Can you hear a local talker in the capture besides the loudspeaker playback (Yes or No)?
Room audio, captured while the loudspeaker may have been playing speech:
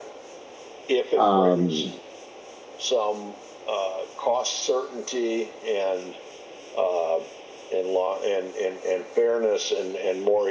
Yes